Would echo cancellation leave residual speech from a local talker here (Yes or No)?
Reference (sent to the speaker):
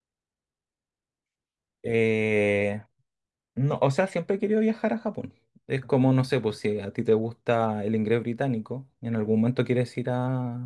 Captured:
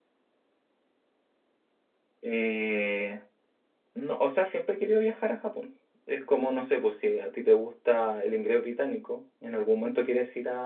No